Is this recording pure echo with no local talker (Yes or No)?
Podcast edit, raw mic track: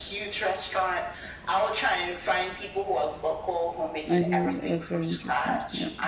No